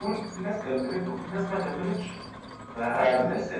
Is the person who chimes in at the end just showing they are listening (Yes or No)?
Yes